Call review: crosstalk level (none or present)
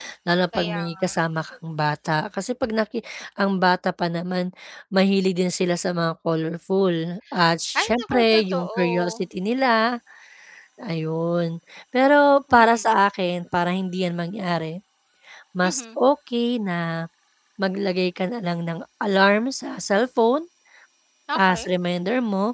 present